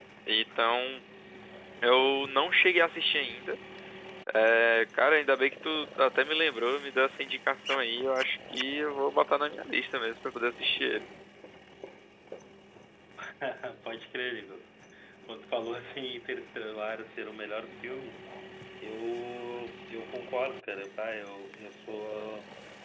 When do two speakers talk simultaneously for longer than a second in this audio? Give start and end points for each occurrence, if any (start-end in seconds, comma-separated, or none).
none